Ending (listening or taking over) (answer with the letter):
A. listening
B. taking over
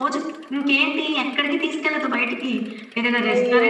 A